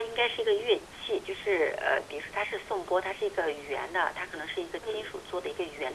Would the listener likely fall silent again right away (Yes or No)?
Yes